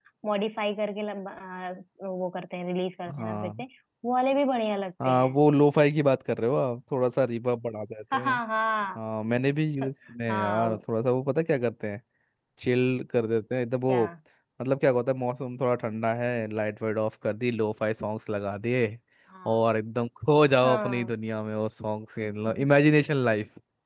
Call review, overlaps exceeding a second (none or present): none